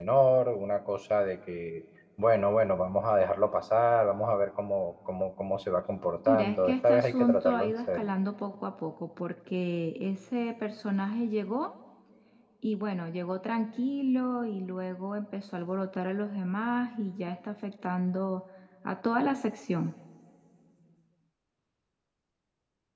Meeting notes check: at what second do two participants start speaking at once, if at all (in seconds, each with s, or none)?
6.3 s